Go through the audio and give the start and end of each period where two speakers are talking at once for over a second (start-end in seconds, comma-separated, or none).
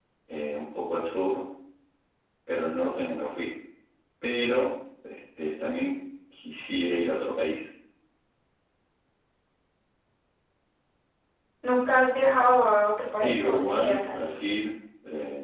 13.2-14.4